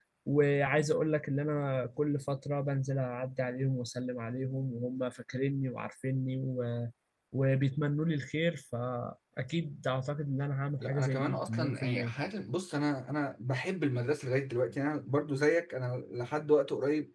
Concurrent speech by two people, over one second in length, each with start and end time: 10.8-12.1

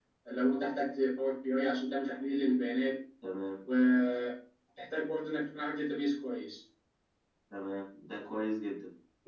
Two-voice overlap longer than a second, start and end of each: none

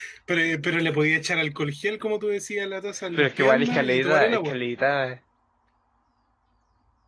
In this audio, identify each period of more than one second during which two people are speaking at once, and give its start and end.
3.2-4.6

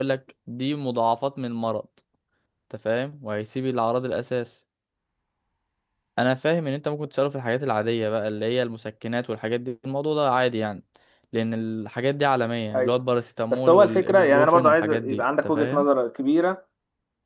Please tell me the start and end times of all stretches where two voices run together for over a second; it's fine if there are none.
13.5-15.9

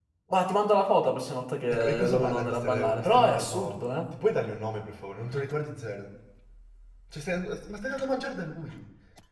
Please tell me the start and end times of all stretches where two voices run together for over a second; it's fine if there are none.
1.7-4.0

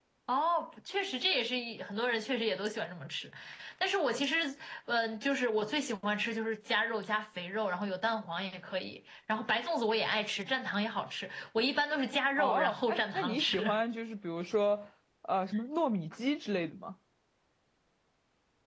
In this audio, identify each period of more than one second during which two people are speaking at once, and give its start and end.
12.4-13.8

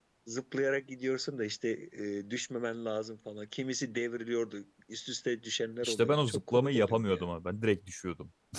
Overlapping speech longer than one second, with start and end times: 5.8-7.2

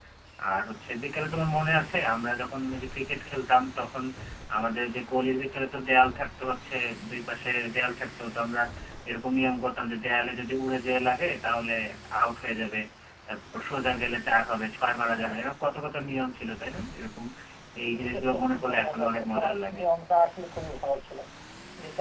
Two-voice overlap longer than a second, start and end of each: 17.9-19.8

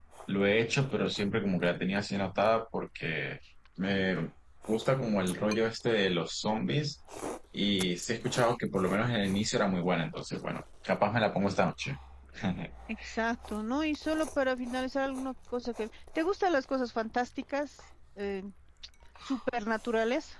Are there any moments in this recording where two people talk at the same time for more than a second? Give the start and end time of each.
none

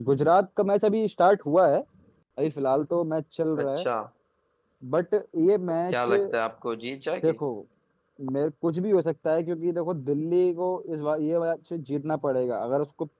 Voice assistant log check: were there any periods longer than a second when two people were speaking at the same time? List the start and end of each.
none

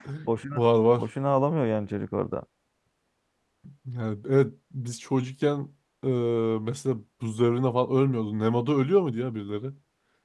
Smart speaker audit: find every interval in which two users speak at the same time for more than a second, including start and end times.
none

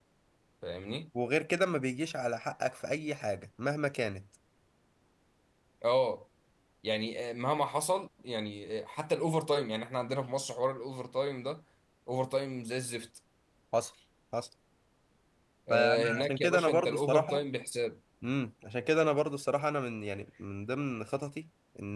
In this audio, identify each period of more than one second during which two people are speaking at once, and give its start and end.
15.7-17.4

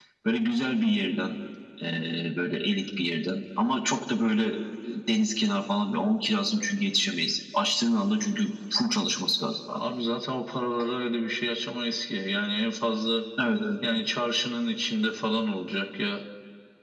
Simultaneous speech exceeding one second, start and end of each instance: none

